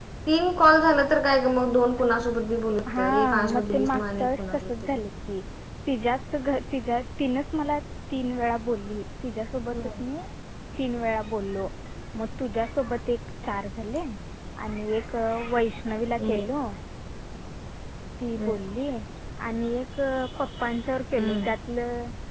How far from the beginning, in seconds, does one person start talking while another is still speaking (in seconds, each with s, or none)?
3.0 s